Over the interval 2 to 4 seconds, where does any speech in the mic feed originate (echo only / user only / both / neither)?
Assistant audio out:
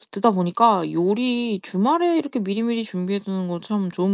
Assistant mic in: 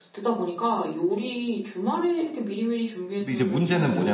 both